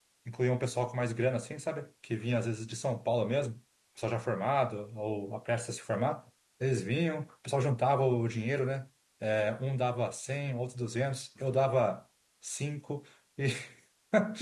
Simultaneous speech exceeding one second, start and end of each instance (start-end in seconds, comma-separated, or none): none